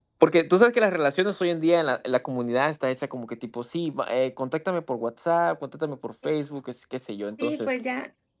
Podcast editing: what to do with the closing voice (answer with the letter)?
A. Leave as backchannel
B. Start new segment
B